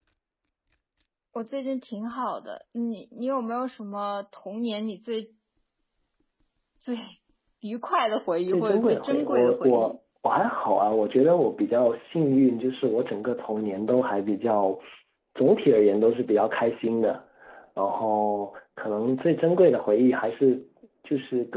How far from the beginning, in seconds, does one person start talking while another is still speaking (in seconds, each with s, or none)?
8.5 s